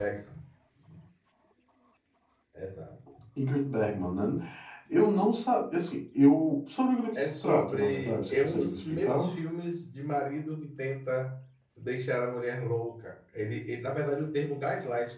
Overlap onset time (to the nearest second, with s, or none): 7 s